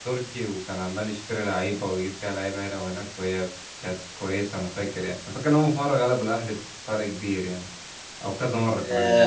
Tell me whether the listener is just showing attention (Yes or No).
No